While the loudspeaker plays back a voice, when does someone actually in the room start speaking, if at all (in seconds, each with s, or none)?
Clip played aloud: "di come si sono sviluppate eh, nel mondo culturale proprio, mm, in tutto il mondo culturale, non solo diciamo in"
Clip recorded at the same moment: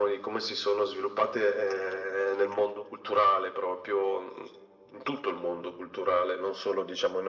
none